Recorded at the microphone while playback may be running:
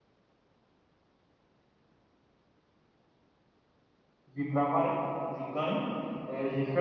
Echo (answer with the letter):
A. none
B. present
A